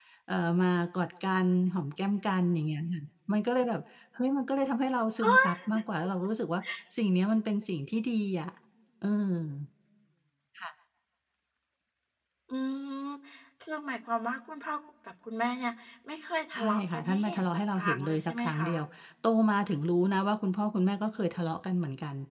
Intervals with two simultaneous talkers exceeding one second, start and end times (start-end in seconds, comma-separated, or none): 16.5-18.8